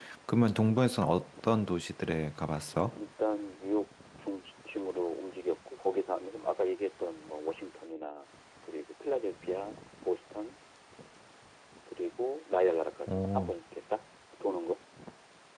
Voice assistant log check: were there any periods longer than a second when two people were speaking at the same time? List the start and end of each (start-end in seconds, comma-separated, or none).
none